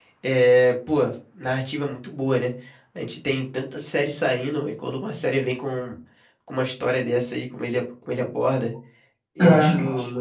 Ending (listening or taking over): listening